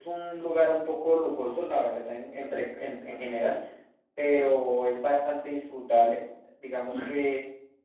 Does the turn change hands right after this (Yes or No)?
No